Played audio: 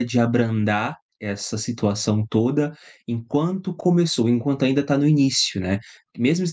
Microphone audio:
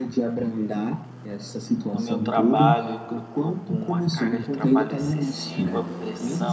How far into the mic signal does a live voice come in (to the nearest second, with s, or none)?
2 s